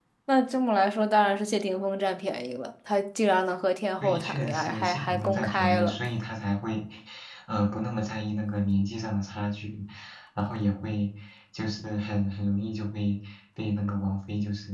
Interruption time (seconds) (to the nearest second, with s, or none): 4 s